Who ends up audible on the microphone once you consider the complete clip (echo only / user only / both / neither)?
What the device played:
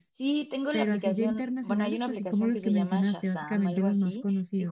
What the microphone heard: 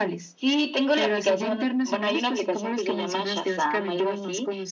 echo only